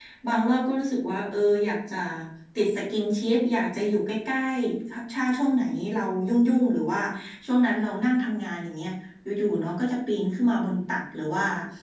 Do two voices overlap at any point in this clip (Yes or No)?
No